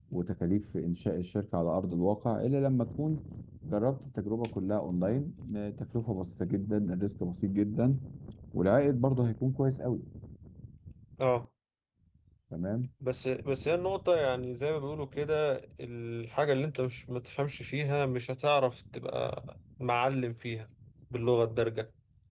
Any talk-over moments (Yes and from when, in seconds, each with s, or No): No